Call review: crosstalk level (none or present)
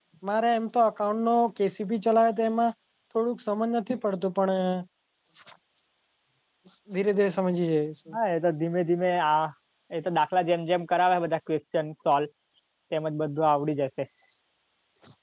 none